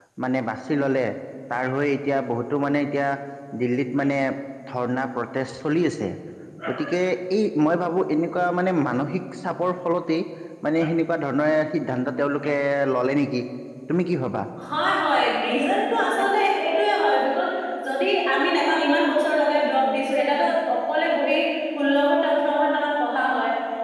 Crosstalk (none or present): none